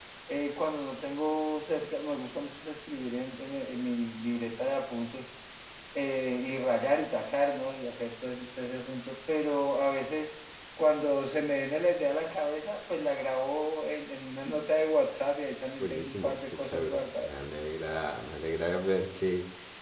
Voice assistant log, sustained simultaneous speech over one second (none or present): present